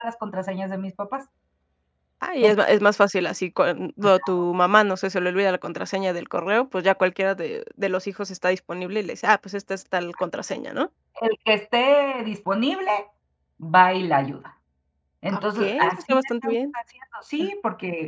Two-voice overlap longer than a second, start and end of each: 15.3-16.6

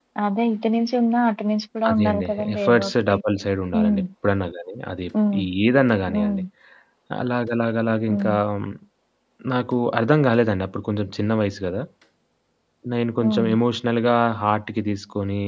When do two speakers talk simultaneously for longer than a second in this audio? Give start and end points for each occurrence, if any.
1.9-3.2

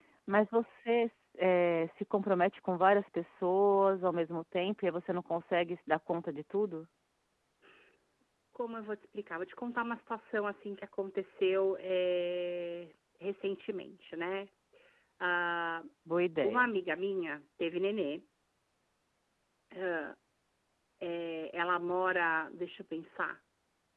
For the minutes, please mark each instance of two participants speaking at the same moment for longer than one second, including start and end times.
none

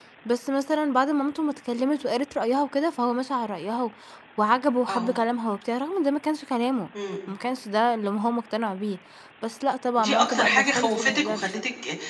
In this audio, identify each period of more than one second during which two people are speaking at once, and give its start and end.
10.0-11.5

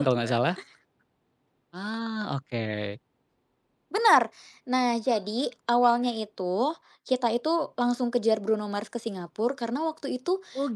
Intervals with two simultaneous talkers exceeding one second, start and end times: none

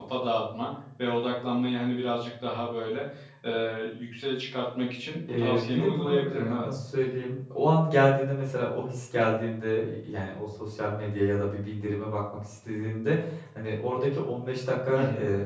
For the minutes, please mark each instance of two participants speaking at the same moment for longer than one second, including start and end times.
5.3-6.7

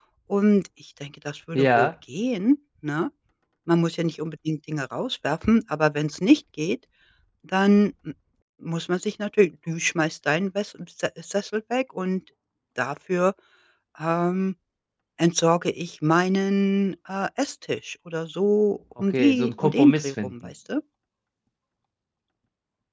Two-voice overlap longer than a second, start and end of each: 19.1-20.3

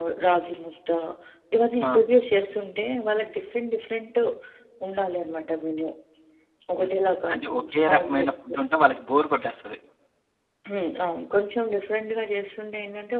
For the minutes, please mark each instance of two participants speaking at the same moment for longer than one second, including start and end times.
6.8-8.6

